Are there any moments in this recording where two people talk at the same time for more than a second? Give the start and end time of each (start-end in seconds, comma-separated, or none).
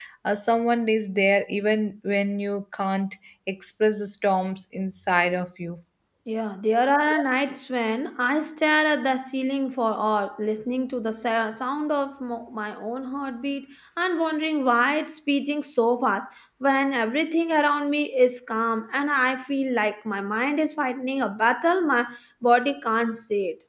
none